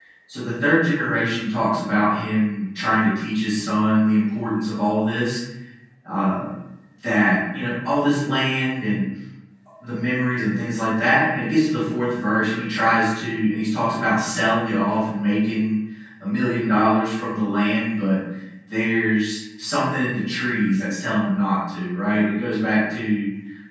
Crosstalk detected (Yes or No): No